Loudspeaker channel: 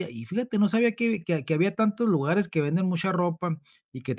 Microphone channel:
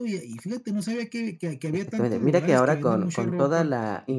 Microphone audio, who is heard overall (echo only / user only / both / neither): both